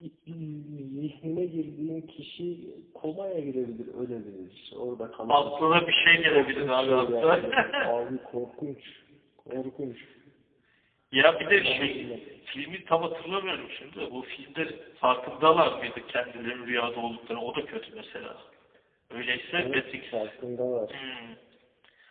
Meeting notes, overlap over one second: present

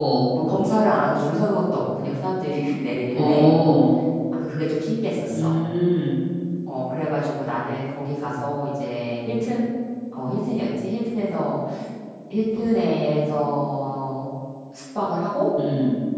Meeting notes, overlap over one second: none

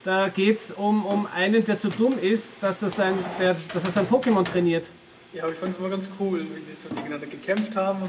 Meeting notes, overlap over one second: none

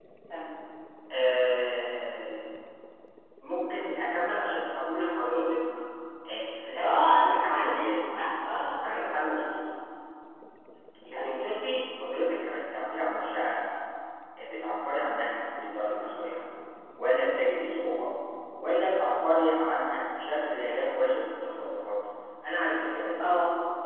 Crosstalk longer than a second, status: present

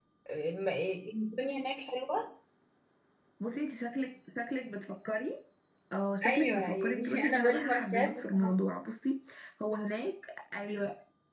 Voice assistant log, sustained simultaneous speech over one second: present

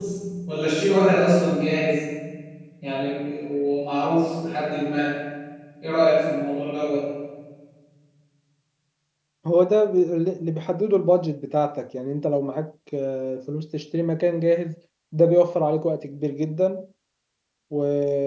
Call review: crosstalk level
none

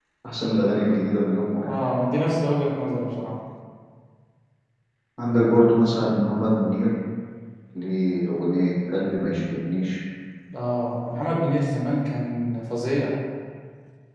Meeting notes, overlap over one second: none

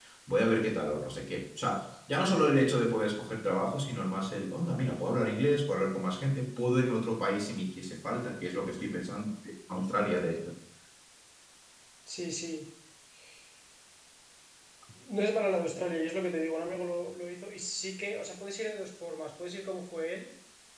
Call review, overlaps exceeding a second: none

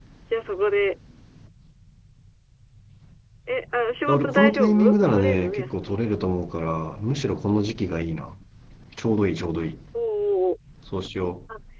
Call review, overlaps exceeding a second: present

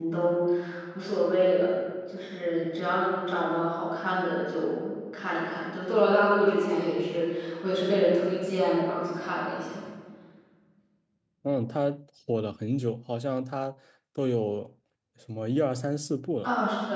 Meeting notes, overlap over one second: none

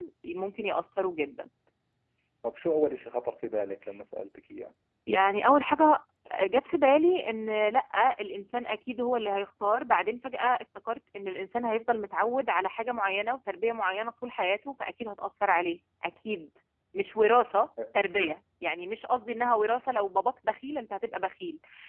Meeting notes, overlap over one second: none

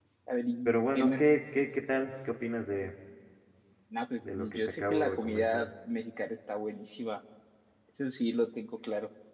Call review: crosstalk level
present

